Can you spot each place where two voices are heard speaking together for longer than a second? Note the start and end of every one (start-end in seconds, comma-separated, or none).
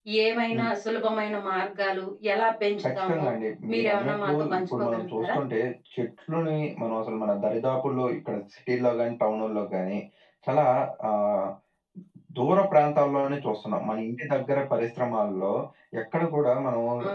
3.7-5.3